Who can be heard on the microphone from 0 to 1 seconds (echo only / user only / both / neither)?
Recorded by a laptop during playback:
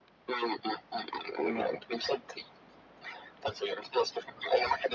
echo only